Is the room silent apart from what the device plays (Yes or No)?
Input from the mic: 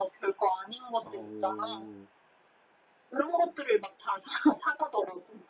No